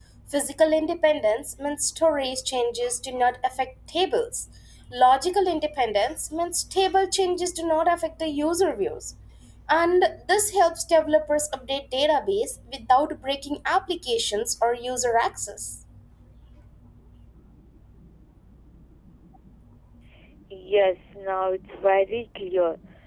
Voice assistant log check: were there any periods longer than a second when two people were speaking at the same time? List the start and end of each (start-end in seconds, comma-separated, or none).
none